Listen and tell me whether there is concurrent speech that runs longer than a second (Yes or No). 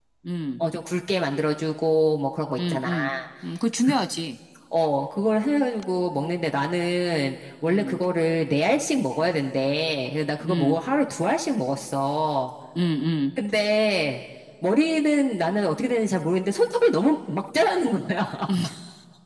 No